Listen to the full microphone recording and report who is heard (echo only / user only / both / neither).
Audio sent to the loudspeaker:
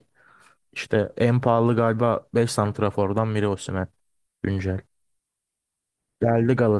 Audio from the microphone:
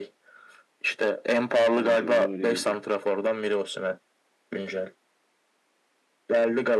both